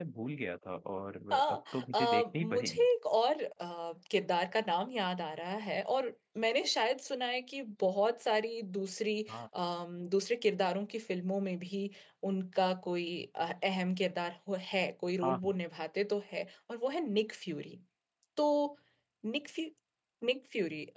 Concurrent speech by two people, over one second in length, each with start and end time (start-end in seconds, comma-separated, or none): 1.3-2.9